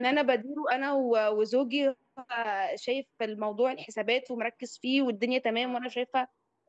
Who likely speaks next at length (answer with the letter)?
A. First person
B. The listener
A